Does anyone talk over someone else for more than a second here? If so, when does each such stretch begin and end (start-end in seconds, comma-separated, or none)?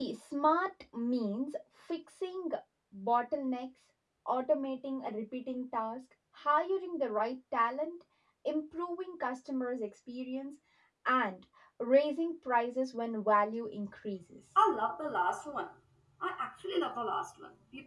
none